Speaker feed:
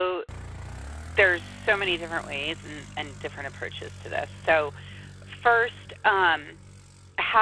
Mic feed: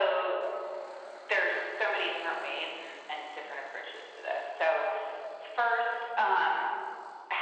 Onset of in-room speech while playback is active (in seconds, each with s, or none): none